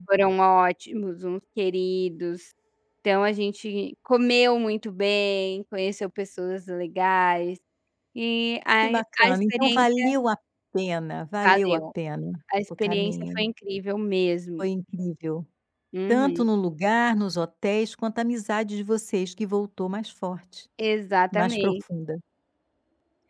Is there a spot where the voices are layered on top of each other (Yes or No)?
Yes